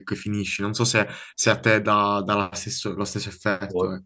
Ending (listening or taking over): taking over